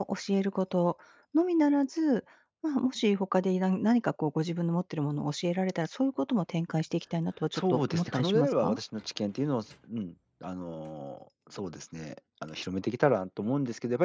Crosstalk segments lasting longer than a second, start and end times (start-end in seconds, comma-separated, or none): 7.5-8.8